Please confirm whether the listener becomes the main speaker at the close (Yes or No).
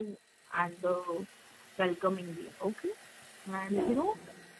No